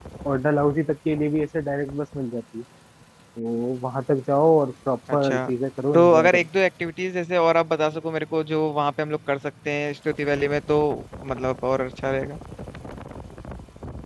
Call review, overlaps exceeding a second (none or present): none